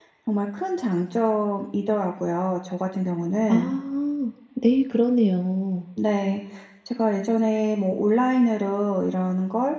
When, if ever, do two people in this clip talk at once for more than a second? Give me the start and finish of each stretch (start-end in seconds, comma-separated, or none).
none